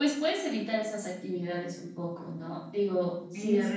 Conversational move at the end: listening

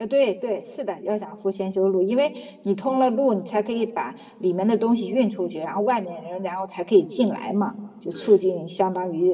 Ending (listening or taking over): listening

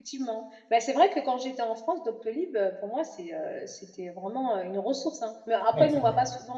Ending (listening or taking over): listening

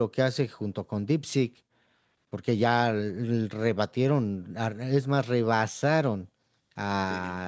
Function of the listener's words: listening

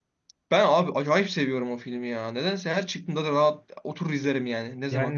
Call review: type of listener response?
taking over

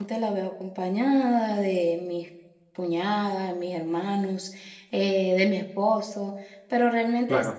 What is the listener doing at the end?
listening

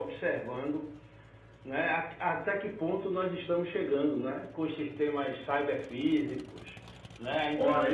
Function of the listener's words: taking over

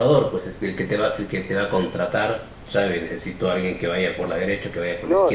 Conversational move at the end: taking over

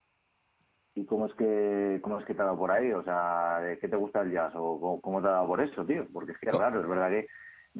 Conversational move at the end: listening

